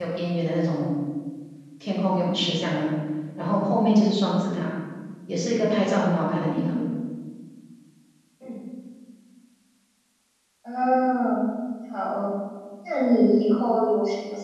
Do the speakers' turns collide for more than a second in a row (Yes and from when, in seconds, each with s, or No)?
No